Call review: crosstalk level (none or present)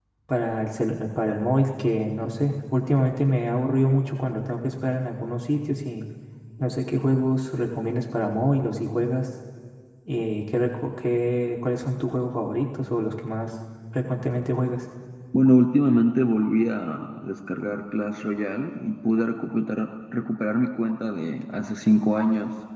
none